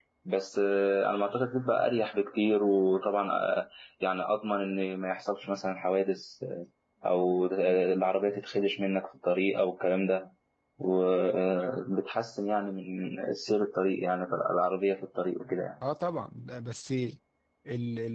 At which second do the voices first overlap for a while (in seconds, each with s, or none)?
none